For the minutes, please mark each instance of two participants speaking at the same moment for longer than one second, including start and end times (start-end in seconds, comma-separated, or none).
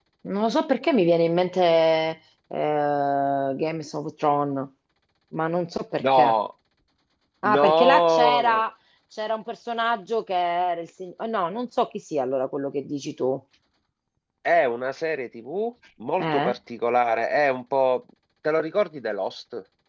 7.4-8.6